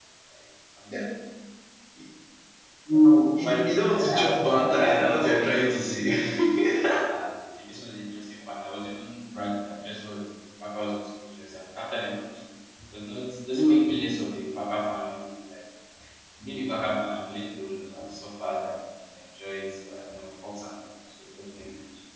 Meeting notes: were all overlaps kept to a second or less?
No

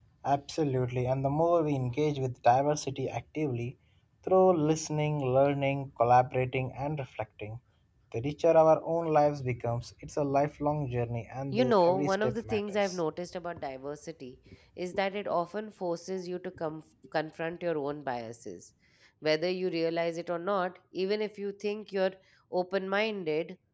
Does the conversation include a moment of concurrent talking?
Yes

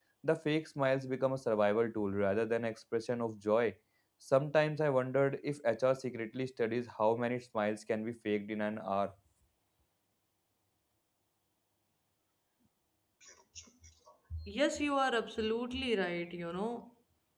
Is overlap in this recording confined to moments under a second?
Yes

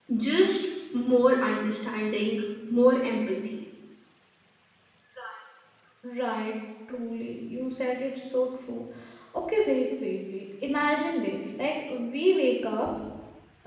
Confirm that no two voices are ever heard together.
Yes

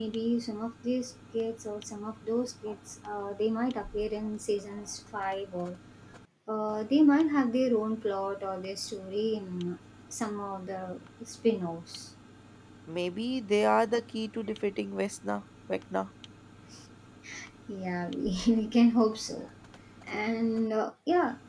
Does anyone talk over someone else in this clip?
No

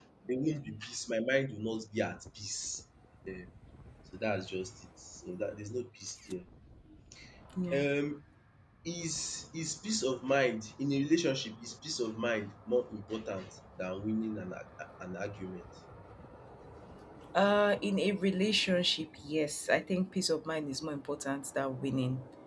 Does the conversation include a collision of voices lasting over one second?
No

